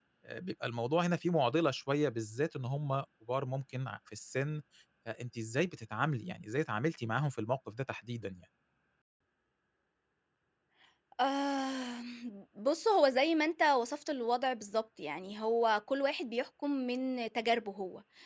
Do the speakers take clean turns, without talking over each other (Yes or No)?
Yes